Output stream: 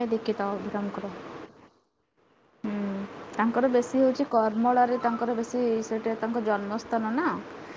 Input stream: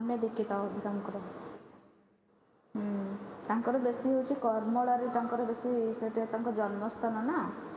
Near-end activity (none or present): none